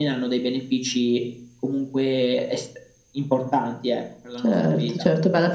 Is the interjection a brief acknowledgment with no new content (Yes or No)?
No